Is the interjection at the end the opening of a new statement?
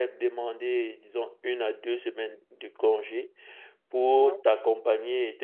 No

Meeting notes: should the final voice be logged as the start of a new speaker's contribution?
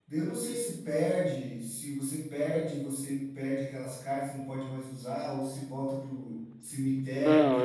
Yes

